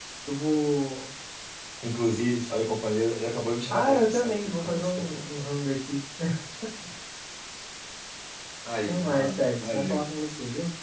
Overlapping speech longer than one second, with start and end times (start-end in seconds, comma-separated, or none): 3.7-5.2, 8.9-10.1